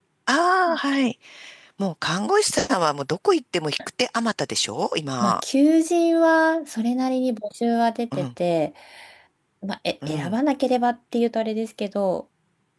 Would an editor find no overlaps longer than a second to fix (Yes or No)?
Yes